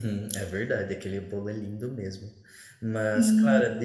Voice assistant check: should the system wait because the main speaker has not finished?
Yes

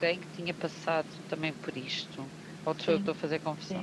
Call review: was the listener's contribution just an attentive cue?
No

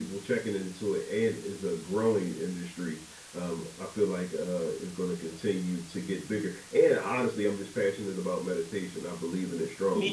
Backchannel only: No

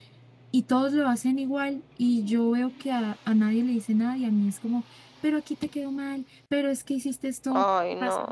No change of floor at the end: Yes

